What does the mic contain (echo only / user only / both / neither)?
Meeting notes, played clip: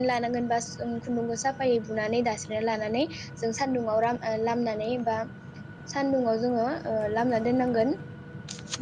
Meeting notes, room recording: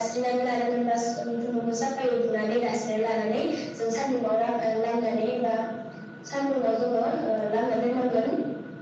echo only